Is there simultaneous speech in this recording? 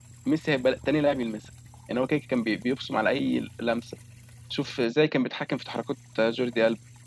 No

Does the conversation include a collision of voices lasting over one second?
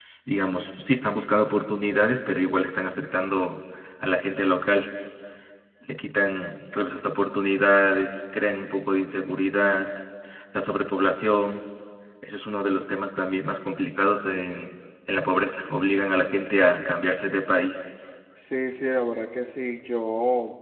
No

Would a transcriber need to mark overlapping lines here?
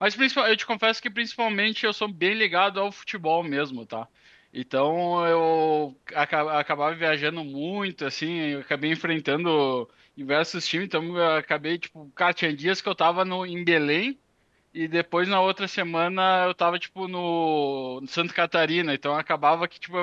No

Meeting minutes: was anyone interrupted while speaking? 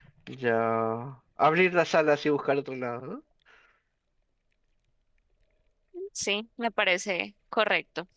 No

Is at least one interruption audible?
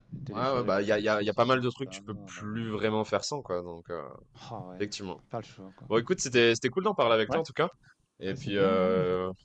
Yes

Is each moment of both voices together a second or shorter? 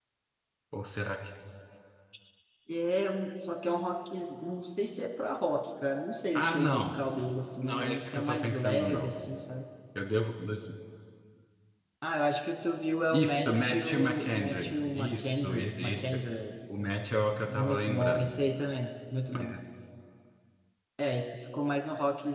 No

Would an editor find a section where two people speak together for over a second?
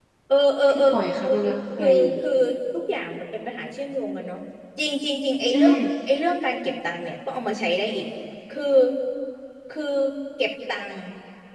No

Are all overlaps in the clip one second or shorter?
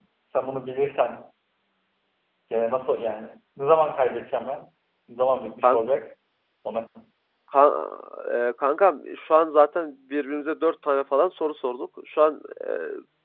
Yes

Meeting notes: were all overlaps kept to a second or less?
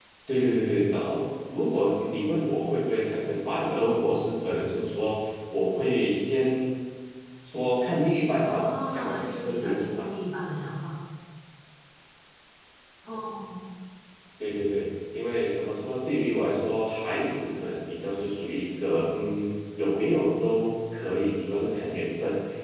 No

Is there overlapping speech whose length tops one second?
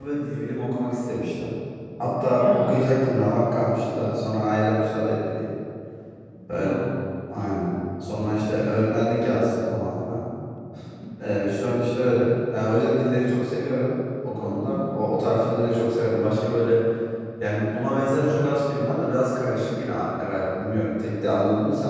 No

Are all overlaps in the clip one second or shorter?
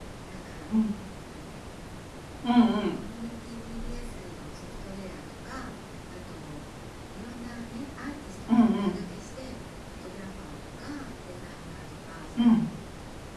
Yes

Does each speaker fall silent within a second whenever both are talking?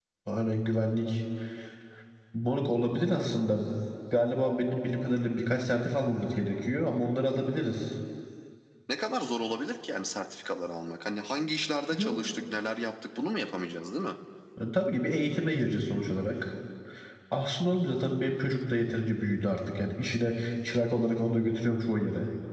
Yes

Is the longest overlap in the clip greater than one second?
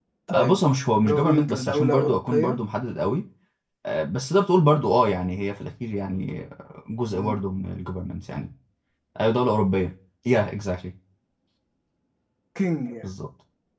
Yes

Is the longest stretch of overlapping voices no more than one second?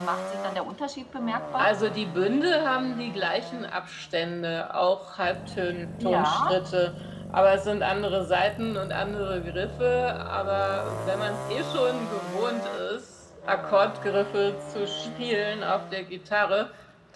Yes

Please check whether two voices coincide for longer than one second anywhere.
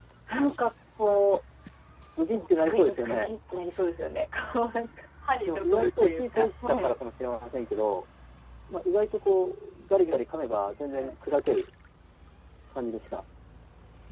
Yes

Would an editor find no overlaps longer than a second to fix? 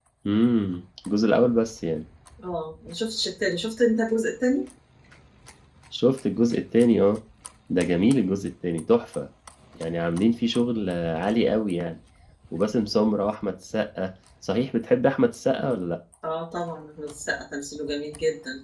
Yes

